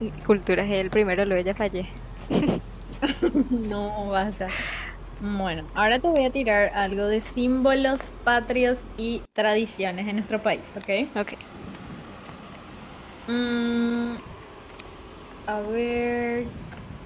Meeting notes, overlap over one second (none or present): none